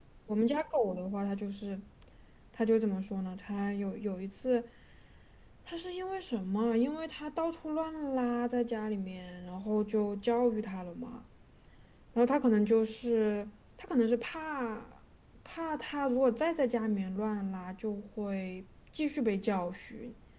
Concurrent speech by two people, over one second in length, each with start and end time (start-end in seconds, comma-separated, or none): none